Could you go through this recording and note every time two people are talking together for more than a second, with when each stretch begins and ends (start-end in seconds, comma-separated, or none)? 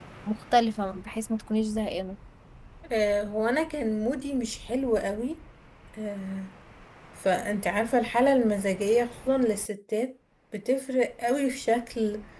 none